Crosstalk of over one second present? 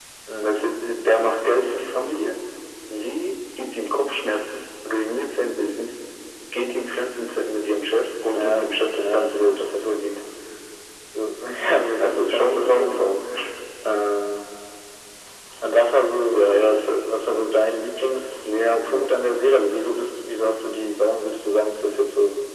Yes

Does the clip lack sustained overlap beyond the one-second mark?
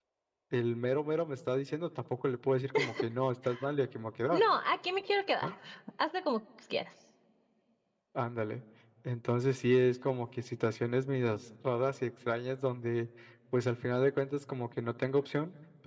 Yes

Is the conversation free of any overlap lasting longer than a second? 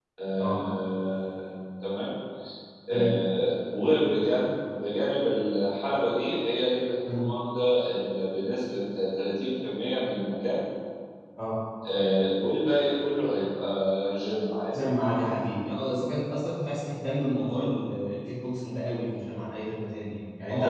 Yes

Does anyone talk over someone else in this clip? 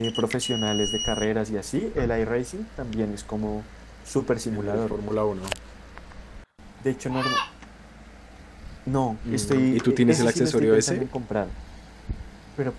Yes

